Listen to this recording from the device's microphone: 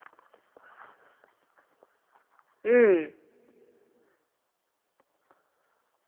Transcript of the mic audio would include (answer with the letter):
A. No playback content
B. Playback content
A